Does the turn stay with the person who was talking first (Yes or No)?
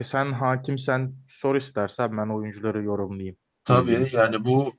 No